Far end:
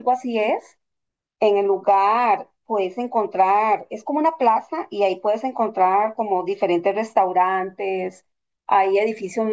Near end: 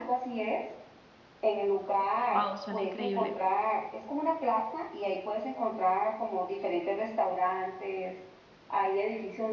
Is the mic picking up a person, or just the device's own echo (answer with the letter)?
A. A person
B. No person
A